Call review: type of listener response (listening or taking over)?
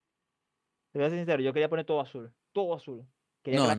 listening